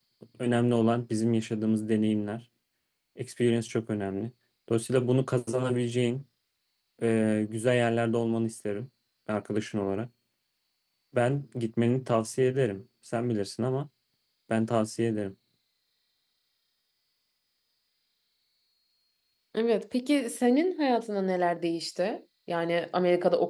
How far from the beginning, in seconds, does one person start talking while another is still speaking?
none

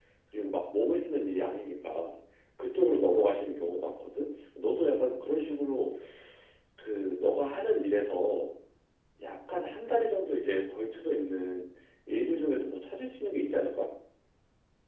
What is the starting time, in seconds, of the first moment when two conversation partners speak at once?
none

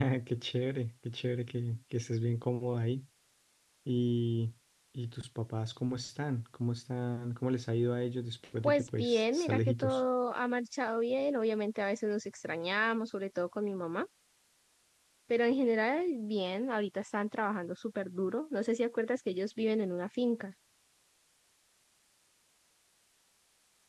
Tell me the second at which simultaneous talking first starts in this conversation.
8.6 s

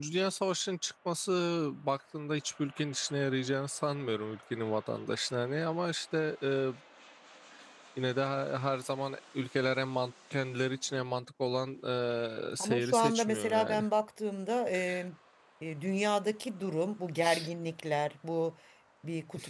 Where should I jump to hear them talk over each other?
12.6 s

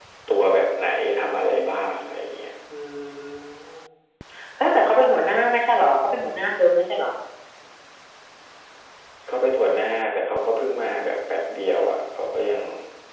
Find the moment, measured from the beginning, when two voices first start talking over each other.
none

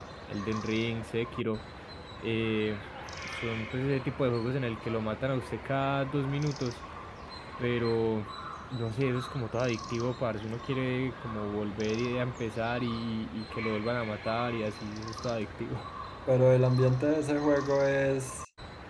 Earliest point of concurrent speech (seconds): none

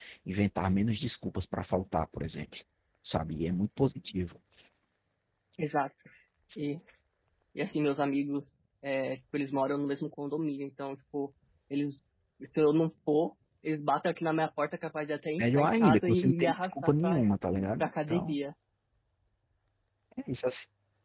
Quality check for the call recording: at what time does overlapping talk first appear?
15.4 s

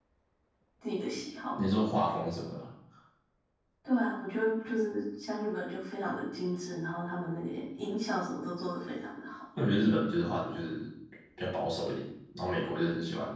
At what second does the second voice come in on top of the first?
none

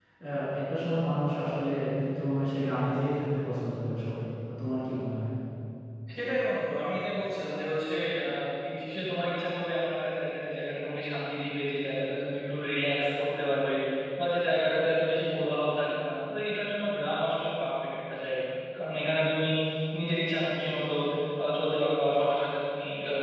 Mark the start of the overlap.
none

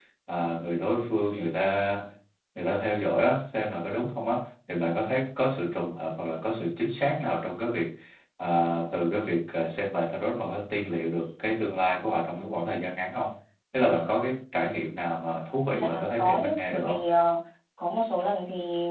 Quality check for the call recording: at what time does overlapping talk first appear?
15.7 s

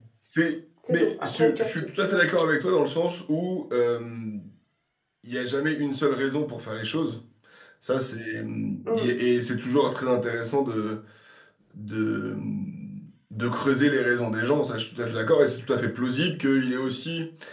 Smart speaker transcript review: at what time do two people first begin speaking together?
0.9 s

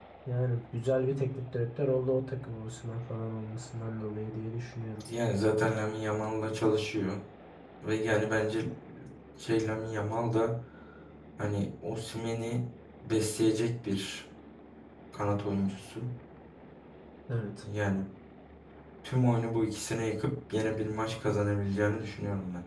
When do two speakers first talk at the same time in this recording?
none

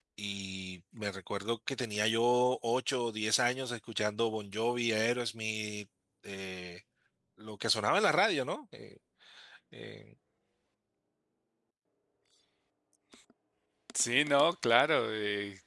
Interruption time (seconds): none

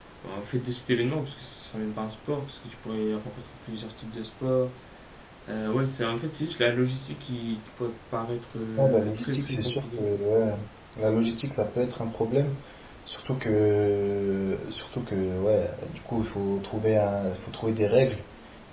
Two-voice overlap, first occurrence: 8.8 s

